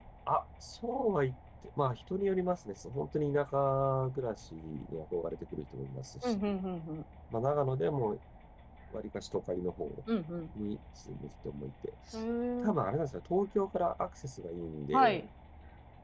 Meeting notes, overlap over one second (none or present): none